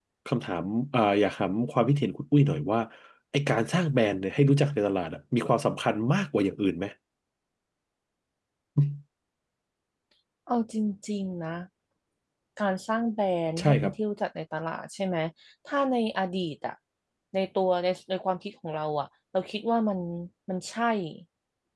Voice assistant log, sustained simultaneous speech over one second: none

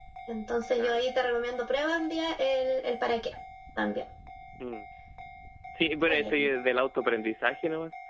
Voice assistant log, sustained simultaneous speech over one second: none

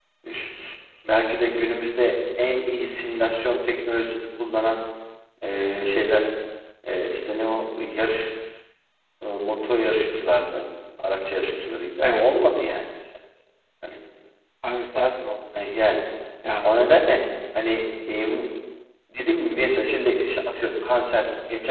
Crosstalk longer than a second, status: none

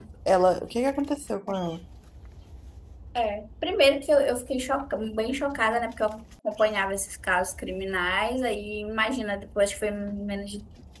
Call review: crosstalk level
none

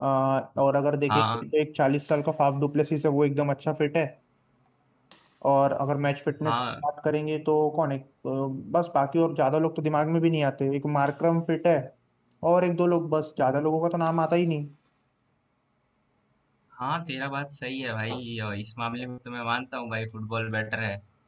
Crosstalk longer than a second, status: none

